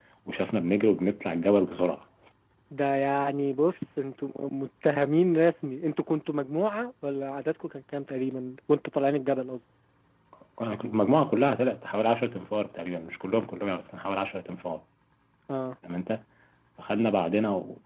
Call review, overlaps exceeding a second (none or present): none